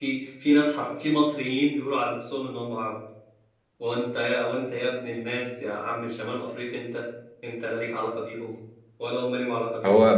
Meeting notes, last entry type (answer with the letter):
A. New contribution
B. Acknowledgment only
A